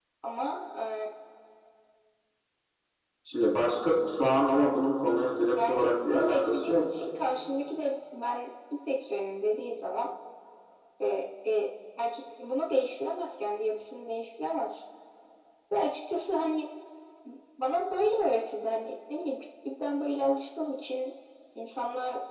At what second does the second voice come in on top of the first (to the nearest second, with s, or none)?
6 s